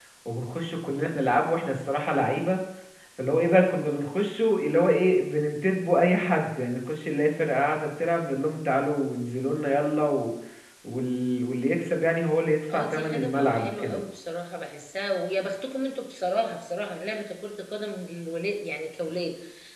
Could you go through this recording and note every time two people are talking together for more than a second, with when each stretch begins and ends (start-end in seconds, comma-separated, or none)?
12.7-14.0